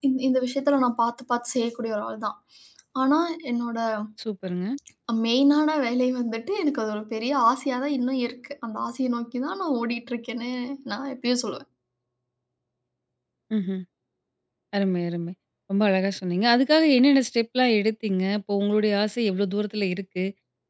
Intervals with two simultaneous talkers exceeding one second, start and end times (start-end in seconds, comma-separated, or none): none